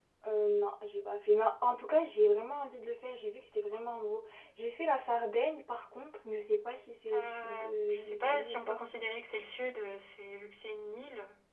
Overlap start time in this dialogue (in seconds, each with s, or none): 7.1 s